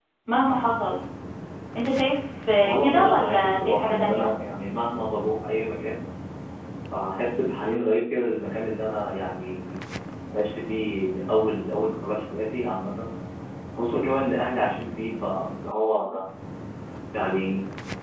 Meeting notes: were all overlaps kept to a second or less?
No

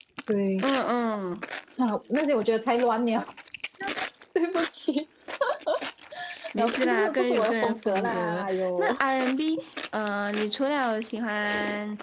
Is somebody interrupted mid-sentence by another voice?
Yes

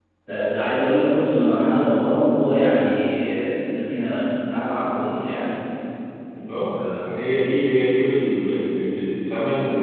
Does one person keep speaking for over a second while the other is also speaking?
No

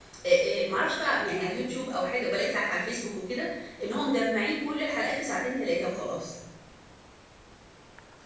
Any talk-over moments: No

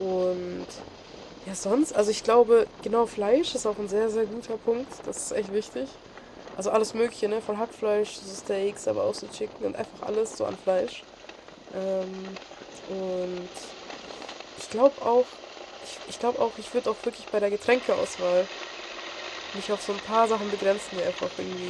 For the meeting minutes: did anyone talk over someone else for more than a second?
No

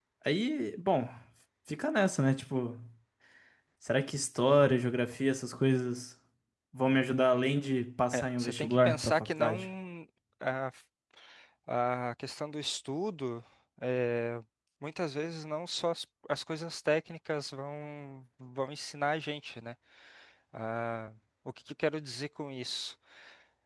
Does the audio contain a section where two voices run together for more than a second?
Yes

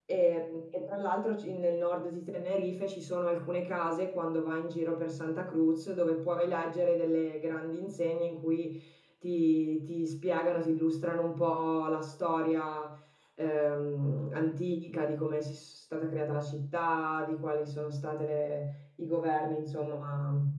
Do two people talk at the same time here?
No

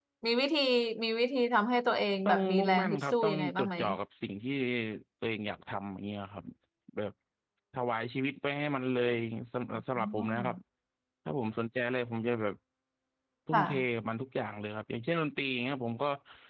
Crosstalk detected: Yes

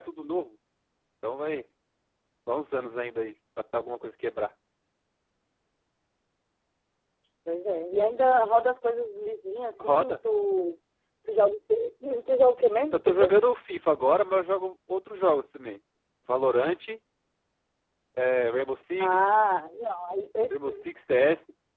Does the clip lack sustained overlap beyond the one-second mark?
Yes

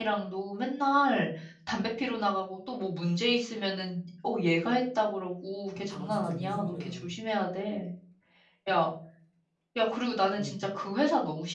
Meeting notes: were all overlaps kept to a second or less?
No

